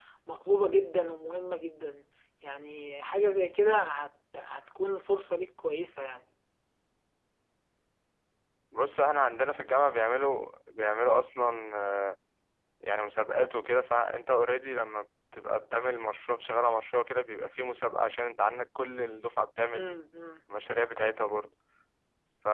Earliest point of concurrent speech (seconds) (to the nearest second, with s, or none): none